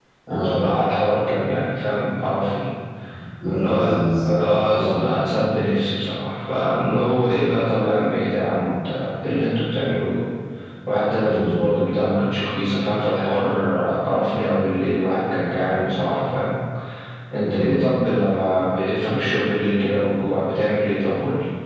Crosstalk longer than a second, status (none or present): present